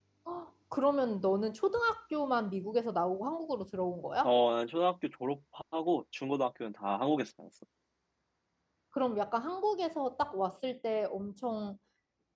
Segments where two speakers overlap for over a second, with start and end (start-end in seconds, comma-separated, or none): none